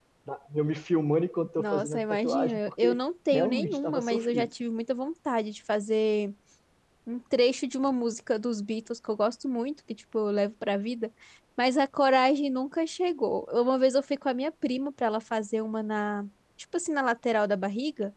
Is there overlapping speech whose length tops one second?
Yes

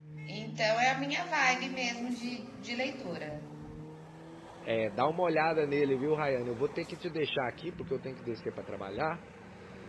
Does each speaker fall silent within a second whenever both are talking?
Yes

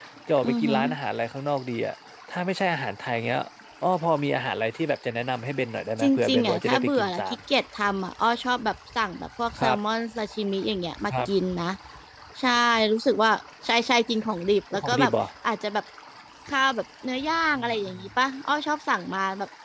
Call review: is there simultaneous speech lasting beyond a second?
Yes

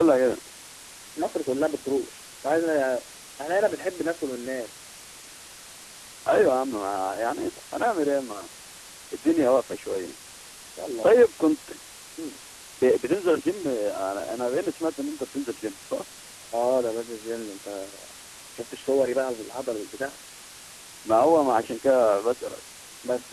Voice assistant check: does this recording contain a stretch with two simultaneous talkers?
No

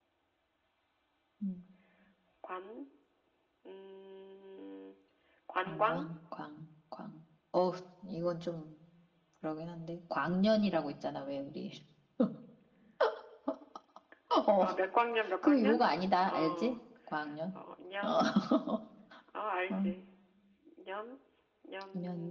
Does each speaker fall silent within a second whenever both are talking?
Yes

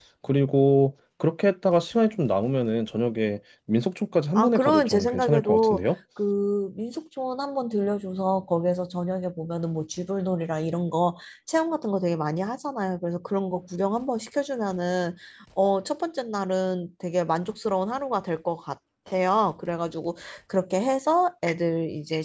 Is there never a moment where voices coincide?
No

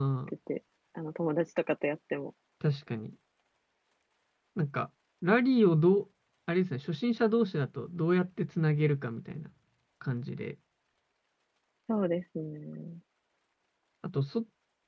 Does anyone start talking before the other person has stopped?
No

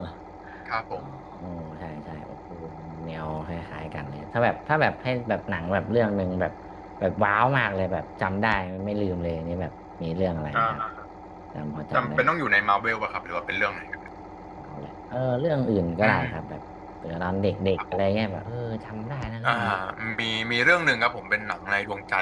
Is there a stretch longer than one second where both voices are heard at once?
No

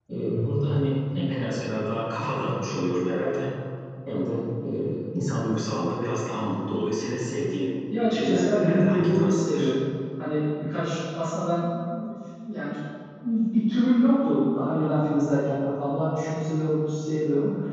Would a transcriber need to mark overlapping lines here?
Yes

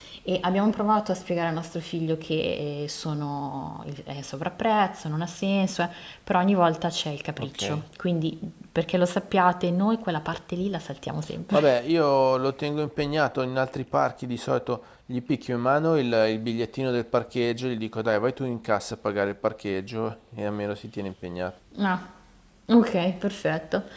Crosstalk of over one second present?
No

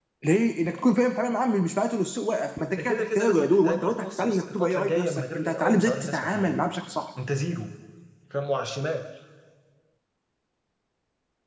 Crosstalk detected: Yes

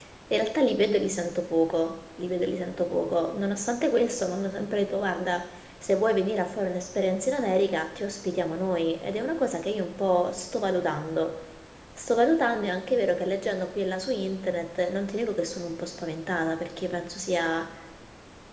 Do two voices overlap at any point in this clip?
No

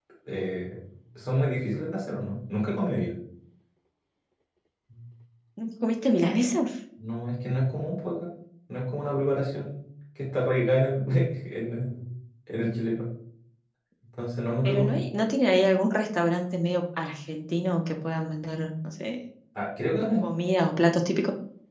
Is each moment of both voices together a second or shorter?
Yes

